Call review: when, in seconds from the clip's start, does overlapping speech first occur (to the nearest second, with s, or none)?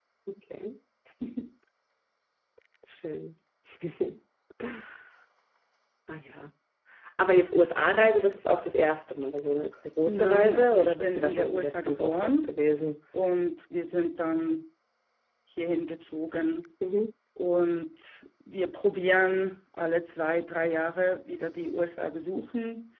10 s